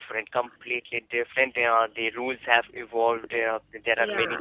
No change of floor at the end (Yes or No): Yes